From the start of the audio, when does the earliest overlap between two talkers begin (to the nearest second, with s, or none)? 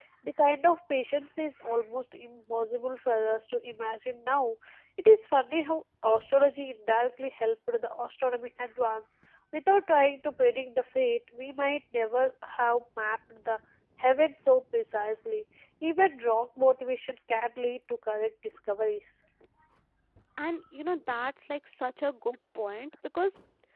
none